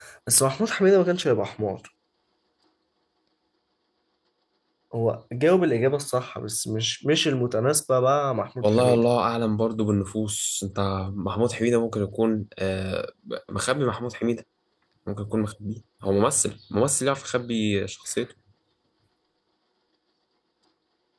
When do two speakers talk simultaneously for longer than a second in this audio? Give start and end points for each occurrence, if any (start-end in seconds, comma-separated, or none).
none